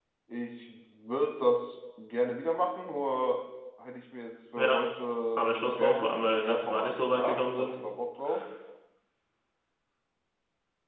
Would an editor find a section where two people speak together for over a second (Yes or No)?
Yes